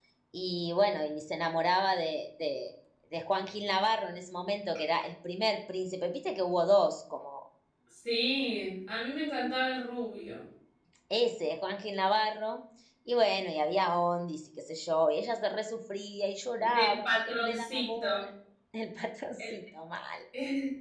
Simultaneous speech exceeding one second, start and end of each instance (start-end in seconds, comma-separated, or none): 16.8-18.3